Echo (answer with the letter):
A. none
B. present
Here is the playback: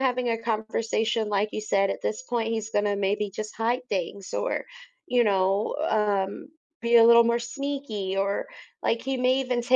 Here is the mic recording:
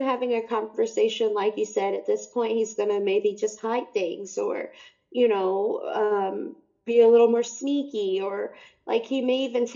B